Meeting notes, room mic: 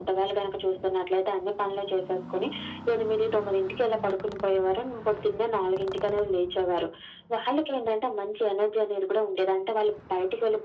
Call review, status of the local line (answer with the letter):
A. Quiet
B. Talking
A